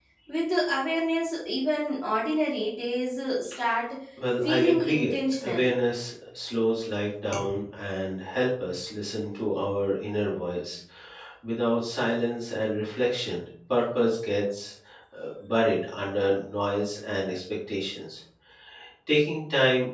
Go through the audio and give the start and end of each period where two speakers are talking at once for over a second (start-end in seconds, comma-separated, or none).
4.4-5.7